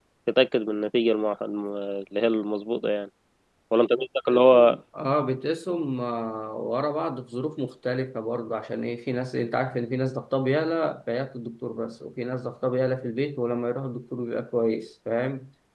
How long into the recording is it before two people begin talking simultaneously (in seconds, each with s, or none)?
none